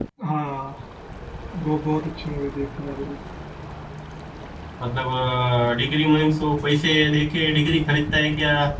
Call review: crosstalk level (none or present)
none